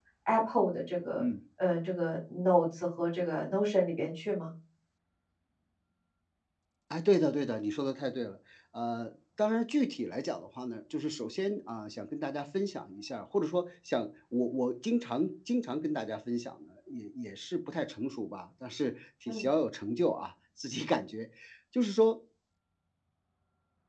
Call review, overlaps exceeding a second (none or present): none